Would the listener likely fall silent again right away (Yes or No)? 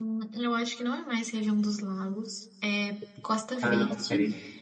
Yes